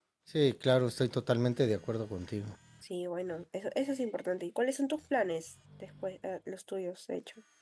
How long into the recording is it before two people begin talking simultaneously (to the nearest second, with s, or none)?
none